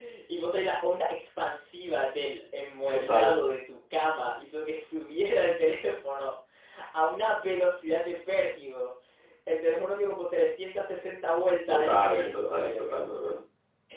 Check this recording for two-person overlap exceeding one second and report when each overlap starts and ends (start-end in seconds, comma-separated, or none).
11.7-13.1